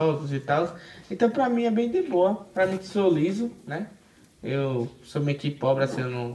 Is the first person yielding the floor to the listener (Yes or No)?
No